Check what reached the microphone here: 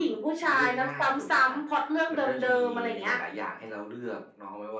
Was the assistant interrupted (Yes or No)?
No